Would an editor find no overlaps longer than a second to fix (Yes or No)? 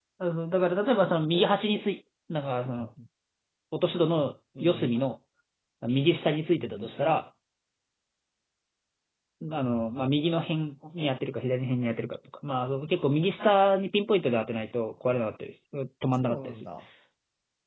Yes